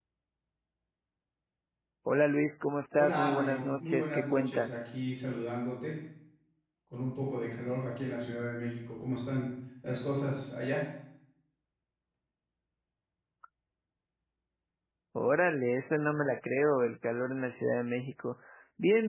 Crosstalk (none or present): present